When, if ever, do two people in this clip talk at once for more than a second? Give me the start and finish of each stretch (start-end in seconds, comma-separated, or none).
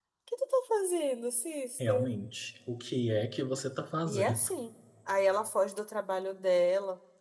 none